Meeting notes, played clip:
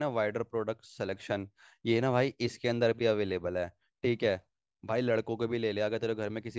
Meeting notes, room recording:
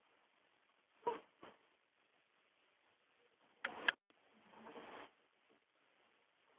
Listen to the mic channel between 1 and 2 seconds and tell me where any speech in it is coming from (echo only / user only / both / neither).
neither